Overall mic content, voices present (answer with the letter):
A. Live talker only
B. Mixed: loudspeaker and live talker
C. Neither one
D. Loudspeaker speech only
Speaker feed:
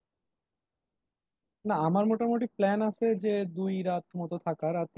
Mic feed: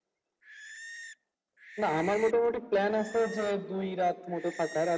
D